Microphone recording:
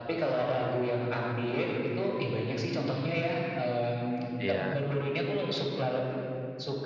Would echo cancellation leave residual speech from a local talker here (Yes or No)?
Yes